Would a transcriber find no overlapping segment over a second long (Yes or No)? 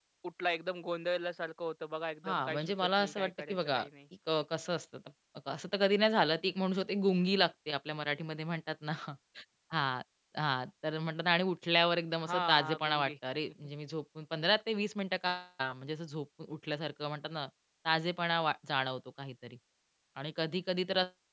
No